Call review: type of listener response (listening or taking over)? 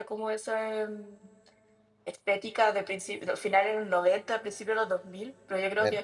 listening